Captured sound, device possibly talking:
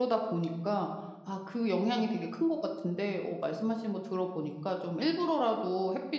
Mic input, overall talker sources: user only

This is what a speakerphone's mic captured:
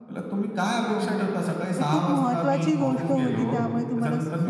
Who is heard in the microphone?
both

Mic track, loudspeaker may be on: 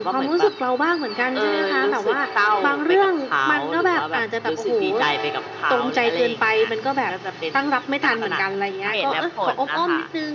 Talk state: both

